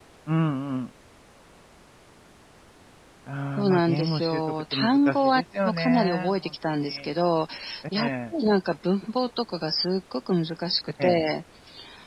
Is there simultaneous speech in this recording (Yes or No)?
Yes